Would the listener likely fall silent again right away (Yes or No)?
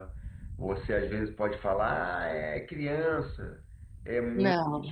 Yes